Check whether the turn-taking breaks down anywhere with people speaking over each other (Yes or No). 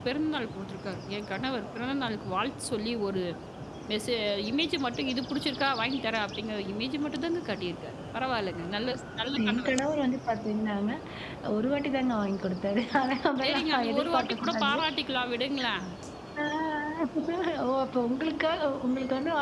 Yes